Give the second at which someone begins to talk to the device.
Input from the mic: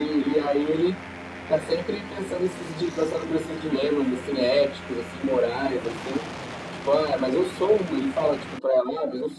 none

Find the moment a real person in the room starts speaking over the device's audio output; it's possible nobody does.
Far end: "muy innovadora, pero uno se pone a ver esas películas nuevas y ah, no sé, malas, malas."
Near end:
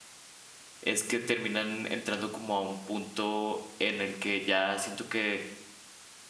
0.8 s

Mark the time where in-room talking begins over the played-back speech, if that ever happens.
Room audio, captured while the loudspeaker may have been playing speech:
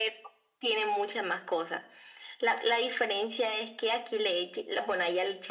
none

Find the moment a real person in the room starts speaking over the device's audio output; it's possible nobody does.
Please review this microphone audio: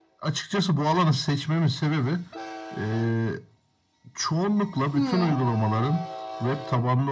4.9 s

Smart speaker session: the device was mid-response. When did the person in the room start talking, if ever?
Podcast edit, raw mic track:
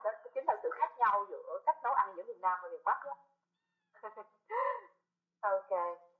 none

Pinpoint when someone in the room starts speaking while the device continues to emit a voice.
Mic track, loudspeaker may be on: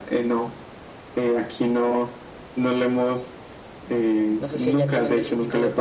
4.4 s

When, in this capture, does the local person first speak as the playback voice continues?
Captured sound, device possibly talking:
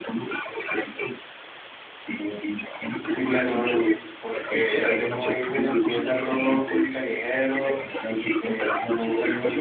3.0 s

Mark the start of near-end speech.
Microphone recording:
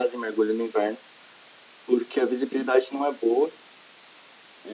none

